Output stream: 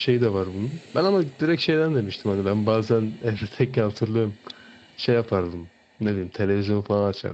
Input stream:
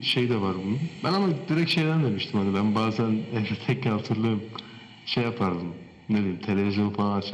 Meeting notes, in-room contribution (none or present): none